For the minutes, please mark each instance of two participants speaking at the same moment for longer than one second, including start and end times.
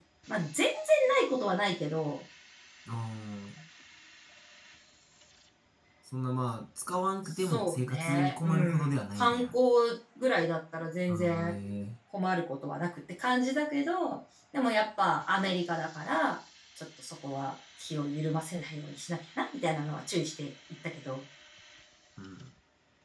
7.2-9.5

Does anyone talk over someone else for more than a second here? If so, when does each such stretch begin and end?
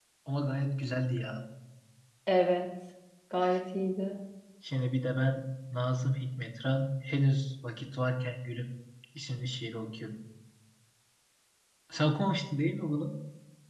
none

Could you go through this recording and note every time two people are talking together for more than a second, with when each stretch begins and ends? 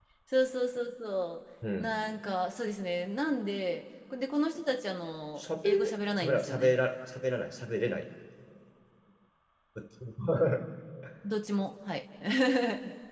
5.4-6.7

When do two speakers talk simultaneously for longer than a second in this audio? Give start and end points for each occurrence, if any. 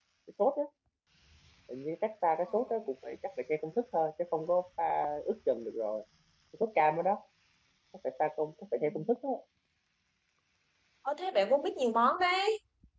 none

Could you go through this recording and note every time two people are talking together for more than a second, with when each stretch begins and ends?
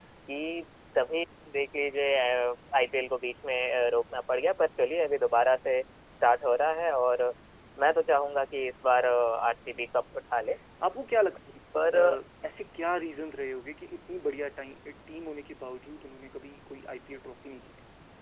none

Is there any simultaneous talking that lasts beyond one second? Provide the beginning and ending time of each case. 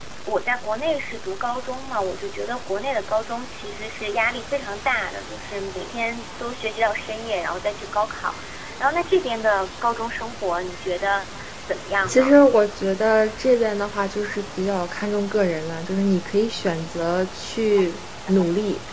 none

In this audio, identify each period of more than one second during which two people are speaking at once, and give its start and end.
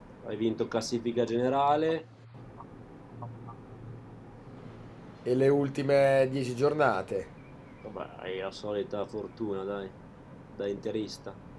none

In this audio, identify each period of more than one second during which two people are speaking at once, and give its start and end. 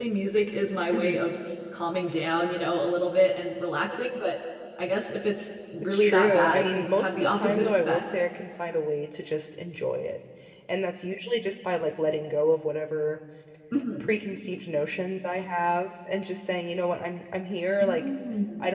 5.8-8.0

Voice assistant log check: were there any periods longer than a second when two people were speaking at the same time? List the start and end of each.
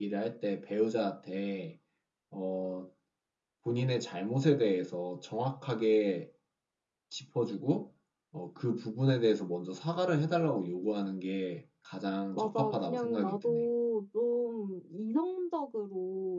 12.3-13.6

